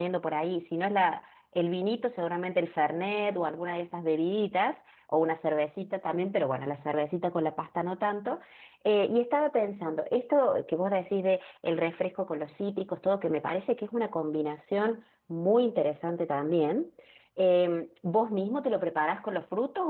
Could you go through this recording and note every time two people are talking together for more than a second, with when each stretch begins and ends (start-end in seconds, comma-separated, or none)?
none